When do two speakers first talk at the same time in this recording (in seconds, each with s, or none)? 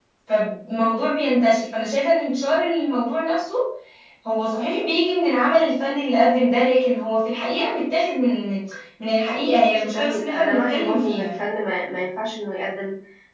9.6 s